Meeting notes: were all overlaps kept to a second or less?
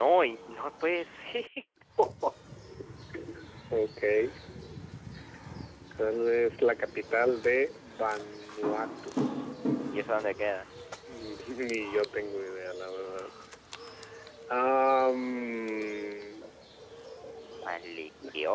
Yes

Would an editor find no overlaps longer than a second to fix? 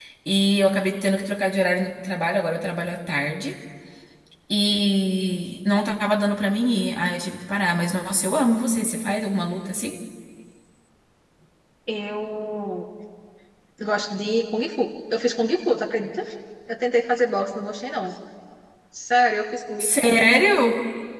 Yes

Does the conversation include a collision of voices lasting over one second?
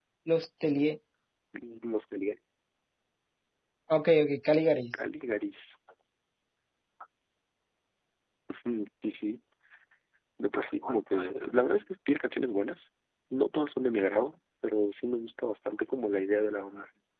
No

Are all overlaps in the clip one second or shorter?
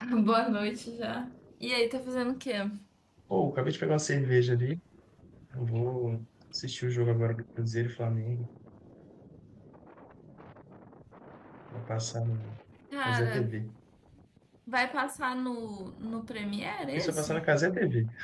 Yes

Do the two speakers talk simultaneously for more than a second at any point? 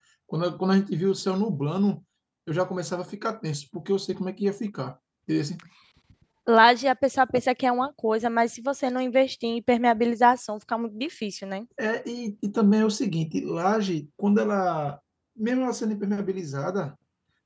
No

